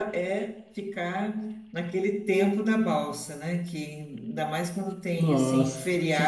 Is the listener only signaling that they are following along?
No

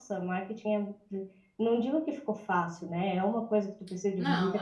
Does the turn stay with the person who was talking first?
Yes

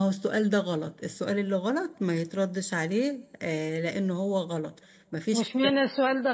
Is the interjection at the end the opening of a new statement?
Yes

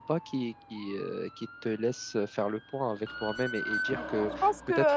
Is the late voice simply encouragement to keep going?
No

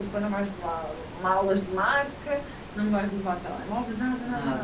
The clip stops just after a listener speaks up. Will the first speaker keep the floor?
Yes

